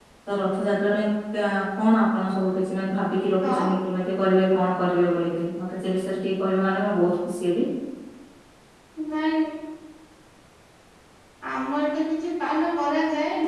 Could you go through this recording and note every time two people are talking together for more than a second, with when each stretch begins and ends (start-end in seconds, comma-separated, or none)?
none